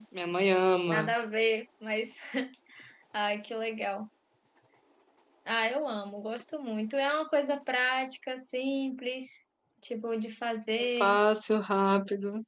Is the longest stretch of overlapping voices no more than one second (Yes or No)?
Yes